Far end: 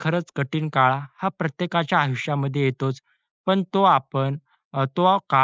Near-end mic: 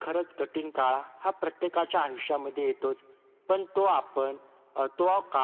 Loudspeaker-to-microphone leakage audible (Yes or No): Yes